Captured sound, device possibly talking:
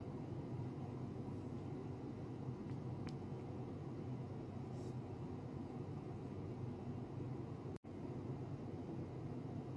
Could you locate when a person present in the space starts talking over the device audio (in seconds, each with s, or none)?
none